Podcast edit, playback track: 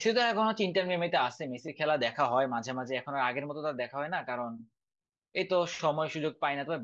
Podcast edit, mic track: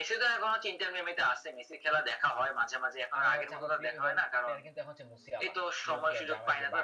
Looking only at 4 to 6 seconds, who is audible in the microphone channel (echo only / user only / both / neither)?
both